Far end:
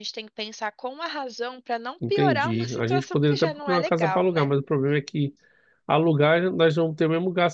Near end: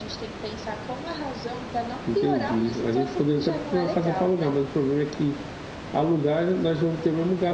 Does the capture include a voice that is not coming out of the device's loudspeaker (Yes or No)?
No